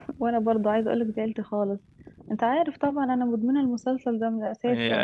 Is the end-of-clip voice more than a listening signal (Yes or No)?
Yes